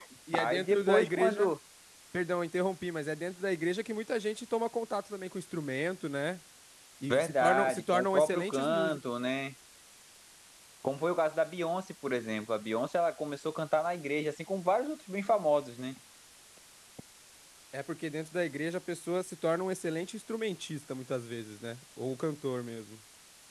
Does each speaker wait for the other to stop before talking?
No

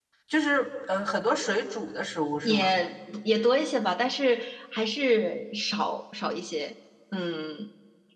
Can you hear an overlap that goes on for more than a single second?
No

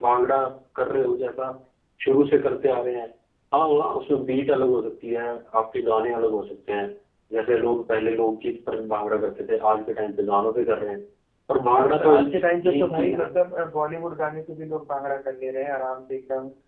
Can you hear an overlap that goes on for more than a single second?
Yes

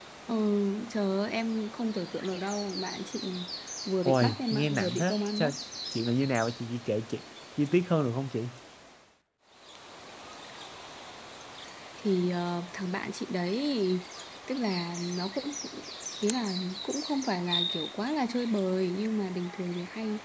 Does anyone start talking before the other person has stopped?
Yes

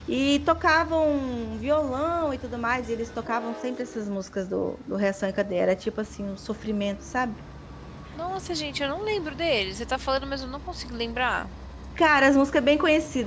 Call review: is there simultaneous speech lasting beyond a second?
No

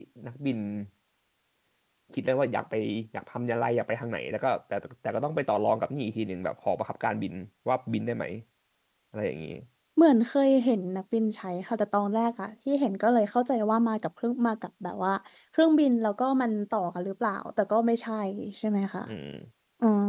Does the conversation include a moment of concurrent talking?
No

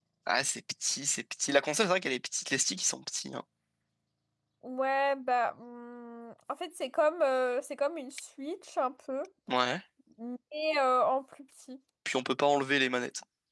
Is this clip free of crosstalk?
Yes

